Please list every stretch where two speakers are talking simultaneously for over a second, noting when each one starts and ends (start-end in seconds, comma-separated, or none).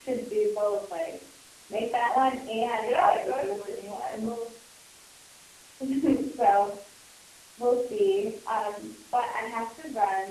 2.8-4.3